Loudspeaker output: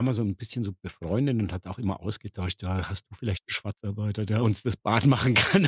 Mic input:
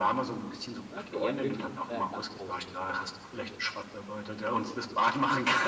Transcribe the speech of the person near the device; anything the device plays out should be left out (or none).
Okay, ihr habt wirklich 'n euer Dach ausgebaut in dem Sinne.